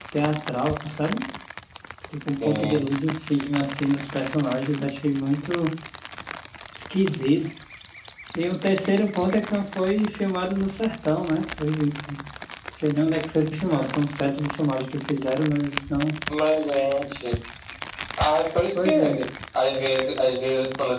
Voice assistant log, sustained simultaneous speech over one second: none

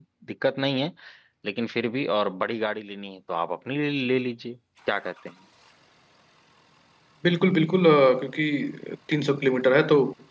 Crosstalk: none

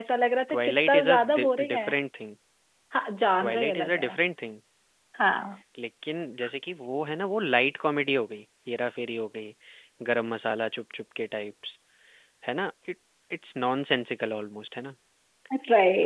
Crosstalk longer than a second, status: present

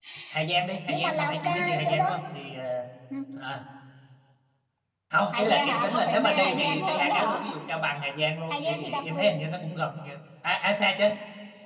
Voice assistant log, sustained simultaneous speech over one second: present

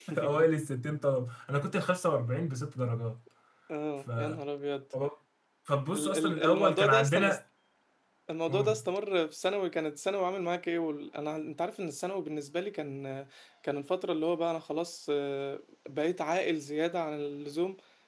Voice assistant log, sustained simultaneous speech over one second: present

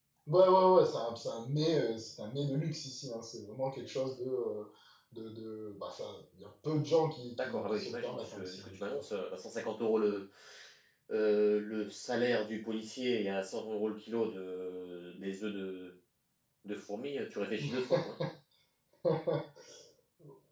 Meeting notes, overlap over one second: present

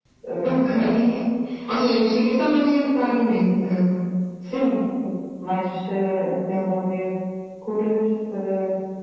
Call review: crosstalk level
none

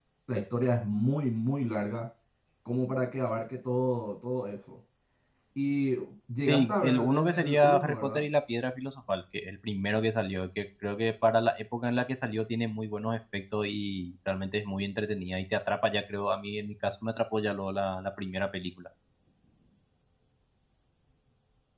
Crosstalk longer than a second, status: present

